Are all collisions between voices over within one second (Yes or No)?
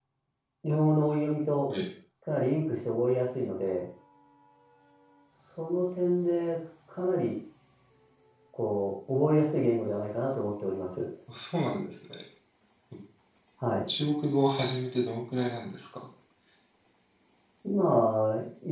Yes